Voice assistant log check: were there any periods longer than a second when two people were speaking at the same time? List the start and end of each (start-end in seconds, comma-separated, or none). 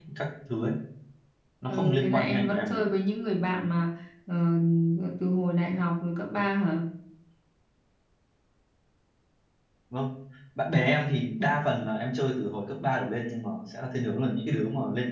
1.7-2.9